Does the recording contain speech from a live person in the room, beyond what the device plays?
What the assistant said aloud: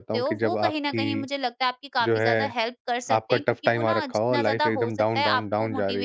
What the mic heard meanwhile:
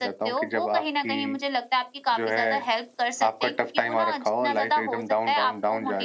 No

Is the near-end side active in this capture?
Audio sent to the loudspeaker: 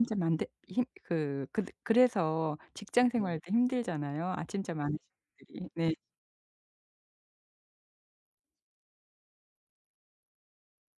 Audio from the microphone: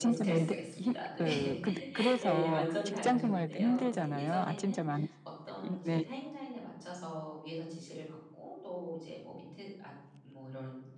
Yes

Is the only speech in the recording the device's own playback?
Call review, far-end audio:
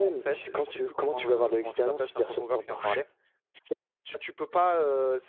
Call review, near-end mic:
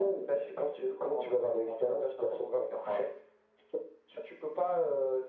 Yes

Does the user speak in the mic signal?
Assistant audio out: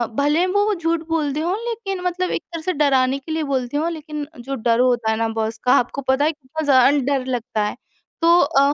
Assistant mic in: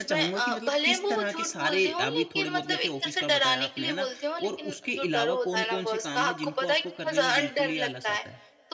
Yes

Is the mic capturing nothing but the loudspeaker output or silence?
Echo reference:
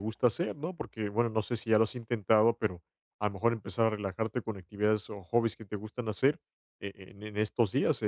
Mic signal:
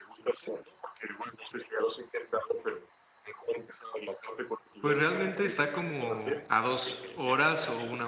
No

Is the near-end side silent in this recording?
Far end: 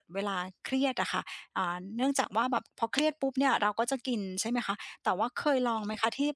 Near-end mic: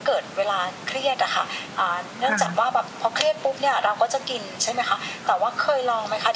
No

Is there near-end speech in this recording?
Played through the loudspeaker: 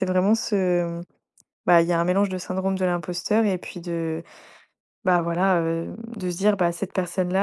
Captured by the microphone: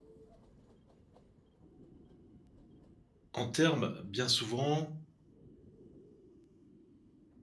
Yes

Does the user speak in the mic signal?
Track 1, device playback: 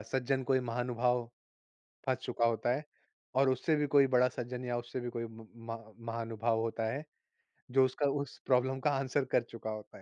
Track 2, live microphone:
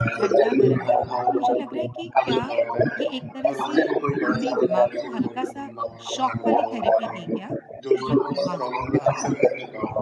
Yes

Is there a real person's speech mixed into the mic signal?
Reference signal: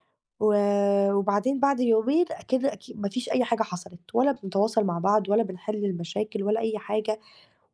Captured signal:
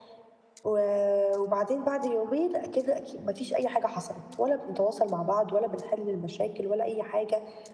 No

